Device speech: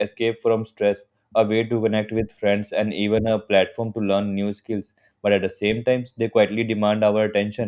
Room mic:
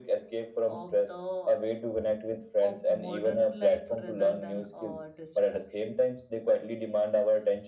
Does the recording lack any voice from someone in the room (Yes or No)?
No